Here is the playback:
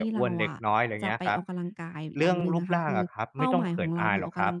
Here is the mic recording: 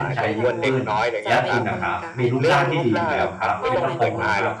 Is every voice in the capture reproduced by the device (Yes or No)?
No